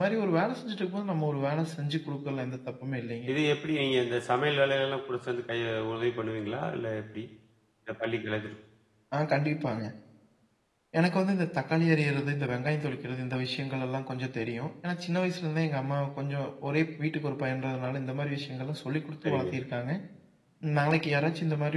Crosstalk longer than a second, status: none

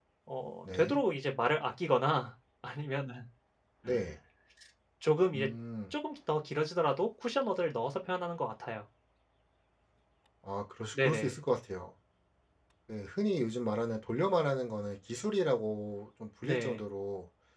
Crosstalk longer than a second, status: none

